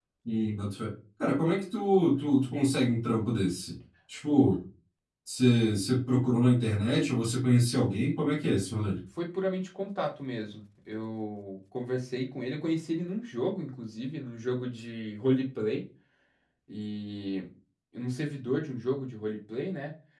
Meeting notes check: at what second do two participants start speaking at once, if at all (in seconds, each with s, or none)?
none